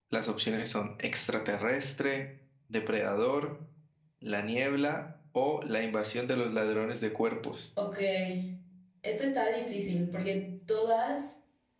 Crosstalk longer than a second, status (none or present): none